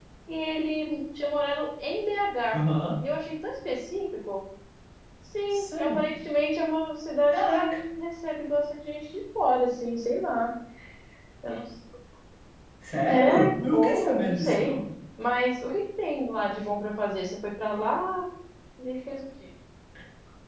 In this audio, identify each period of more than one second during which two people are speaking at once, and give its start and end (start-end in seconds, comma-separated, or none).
13.1-14.8